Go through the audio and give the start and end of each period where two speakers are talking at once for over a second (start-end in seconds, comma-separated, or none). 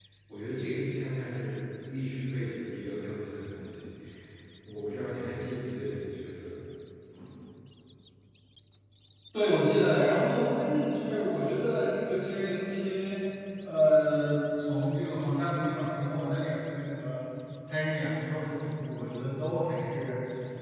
none